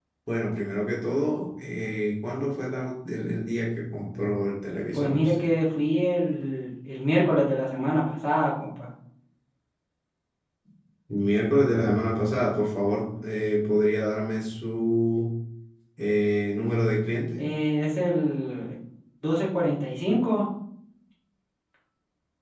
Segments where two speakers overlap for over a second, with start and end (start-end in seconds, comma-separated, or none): none